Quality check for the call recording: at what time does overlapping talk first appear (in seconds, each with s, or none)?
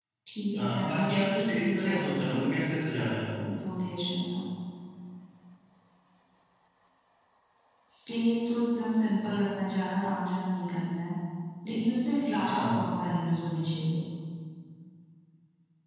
0.6 s